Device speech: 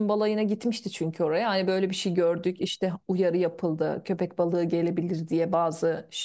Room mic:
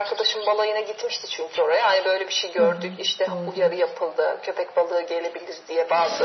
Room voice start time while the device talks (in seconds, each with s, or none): 2.6 s